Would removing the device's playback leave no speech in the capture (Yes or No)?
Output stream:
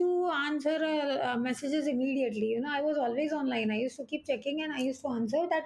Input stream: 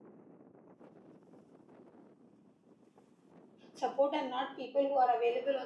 No